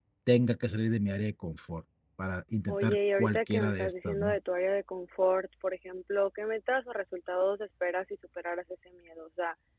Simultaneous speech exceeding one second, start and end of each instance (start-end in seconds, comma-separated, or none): 2.7-4.4